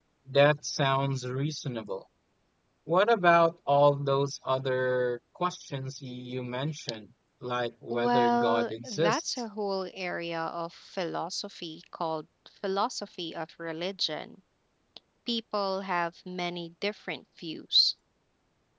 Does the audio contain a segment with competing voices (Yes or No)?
Yes